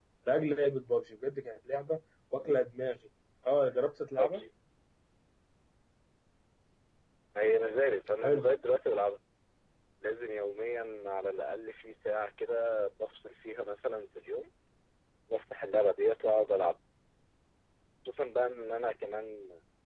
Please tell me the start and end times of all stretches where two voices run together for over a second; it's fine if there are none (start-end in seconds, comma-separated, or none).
none